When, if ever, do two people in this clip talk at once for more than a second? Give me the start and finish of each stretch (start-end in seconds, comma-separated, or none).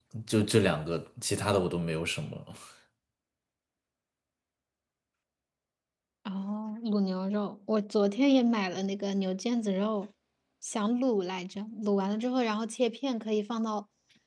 none